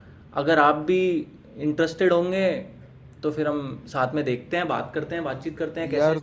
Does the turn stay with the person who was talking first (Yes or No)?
No